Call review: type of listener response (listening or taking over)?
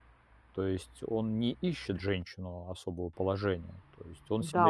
taking over